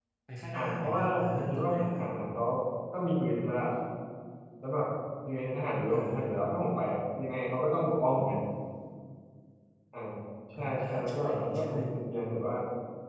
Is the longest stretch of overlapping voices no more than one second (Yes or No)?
No